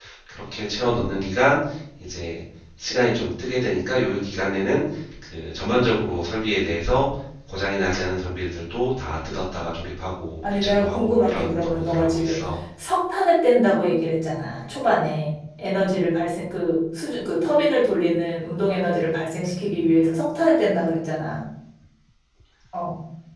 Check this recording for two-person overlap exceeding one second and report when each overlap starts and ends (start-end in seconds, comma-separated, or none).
10.4-12.5